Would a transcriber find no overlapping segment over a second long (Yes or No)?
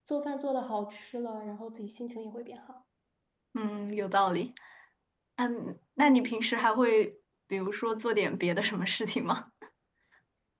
Yes